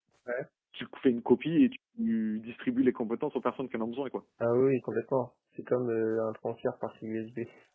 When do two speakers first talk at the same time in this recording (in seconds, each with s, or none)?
none